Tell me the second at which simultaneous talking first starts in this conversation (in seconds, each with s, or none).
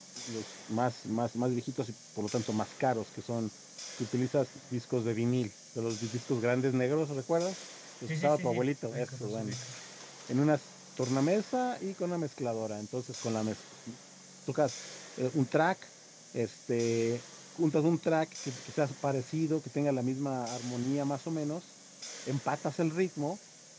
8.1 s